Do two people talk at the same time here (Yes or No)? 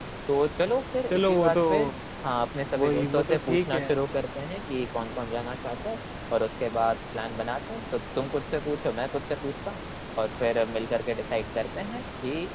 Yes